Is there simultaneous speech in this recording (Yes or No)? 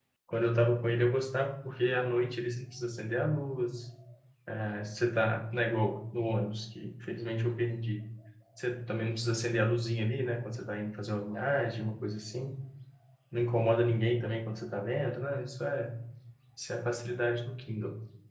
No